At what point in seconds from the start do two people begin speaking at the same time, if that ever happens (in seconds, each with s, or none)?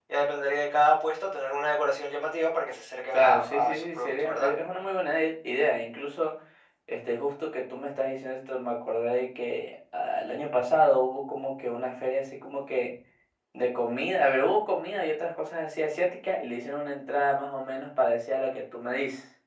3.1 s